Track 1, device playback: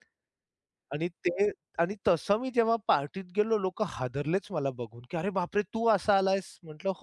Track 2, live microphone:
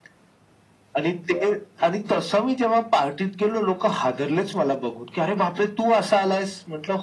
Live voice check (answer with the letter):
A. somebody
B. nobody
B